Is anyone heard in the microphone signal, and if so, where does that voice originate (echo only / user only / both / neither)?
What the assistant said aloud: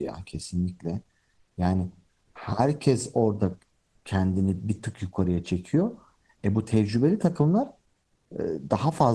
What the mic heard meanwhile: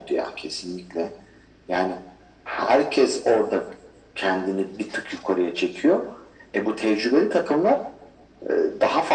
echo only